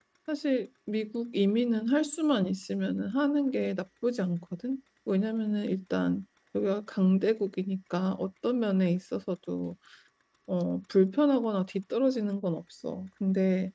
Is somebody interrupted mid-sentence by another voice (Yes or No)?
No